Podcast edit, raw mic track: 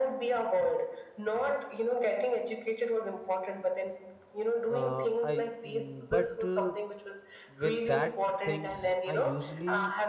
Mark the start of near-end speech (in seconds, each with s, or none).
4.7 s